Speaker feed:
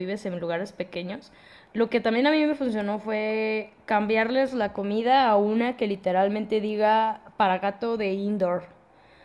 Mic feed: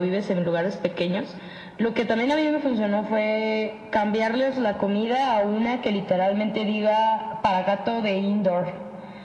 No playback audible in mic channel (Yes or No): No